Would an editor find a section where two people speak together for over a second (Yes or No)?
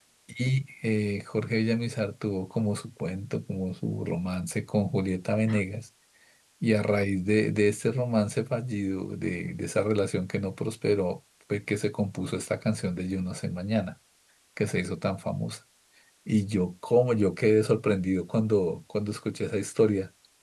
No